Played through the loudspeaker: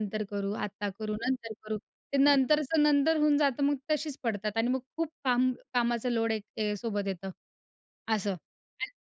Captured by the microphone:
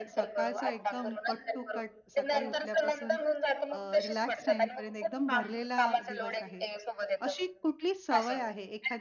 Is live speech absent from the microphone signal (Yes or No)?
No